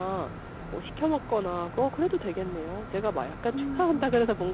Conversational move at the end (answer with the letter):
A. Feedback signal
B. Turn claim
A